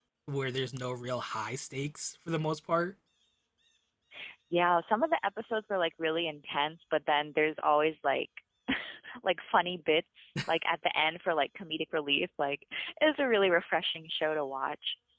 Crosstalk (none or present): none